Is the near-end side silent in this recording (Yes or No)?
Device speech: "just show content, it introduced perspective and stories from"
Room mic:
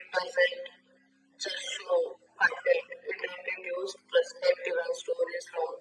Yes